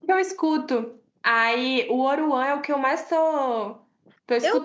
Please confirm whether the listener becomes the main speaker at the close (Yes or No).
Yes